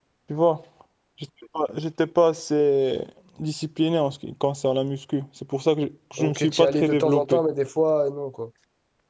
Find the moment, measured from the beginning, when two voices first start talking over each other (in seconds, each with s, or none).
6.2 s